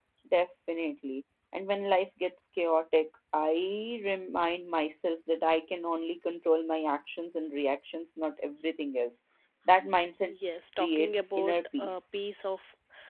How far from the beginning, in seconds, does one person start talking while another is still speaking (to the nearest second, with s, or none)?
11 s